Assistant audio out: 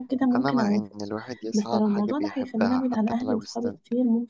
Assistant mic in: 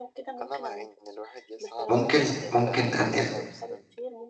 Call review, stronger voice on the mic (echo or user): user